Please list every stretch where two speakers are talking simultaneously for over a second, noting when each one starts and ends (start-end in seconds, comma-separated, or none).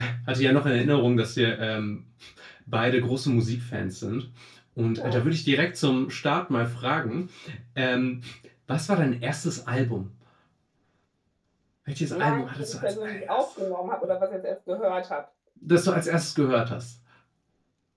12.1-13.5